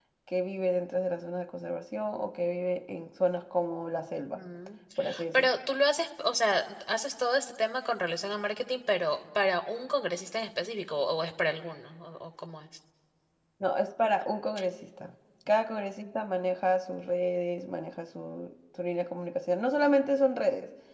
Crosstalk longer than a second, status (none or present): none